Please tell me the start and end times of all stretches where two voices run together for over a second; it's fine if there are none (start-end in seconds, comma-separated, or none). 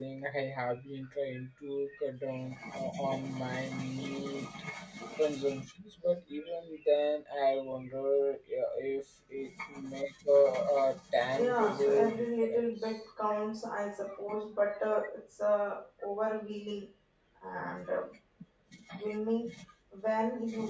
11.3-13.0